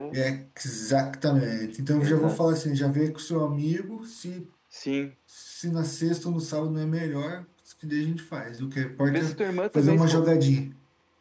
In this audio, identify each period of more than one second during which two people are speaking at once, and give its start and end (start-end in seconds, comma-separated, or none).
9.1-10.3